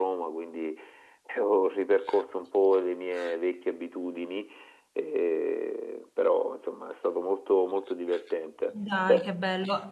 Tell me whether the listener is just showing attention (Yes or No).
No